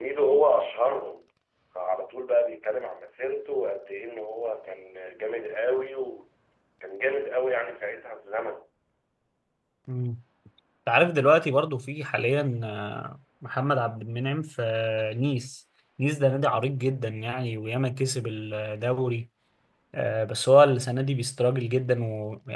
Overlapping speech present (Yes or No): No